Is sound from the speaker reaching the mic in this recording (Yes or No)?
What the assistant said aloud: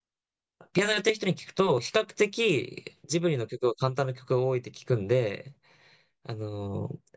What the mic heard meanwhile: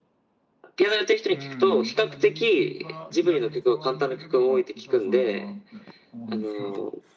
Yes